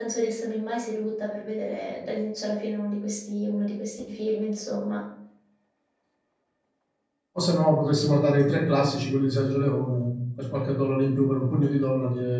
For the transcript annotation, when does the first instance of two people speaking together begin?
none

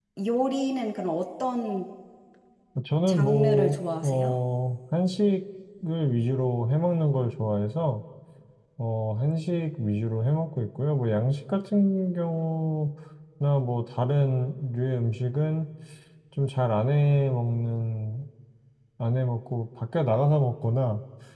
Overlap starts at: 3 s

